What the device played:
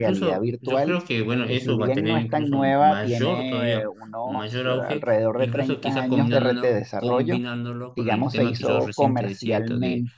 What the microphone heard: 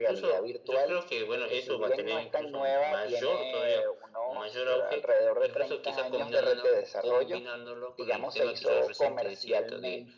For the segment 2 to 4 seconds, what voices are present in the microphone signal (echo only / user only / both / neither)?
echo only